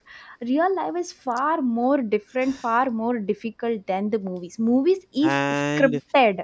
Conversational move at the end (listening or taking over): taking over